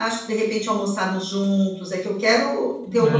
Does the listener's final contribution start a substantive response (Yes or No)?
No